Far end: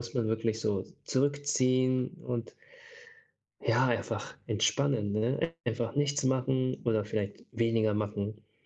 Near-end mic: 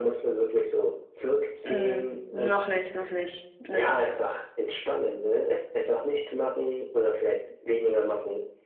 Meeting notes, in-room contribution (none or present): present